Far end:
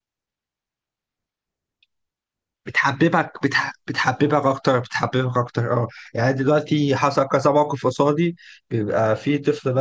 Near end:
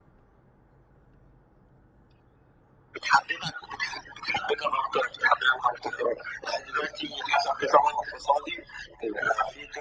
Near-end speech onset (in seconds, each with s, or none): none